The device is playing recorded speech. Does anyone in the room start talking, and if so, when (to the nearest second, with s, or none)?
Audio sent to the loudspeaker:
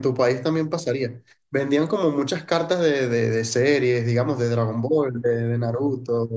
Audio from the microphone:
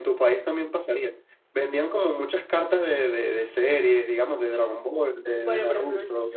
5 s